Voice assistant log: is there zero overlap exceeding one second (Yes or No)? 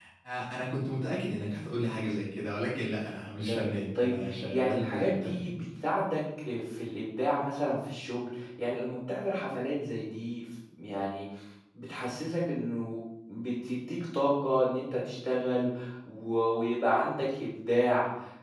No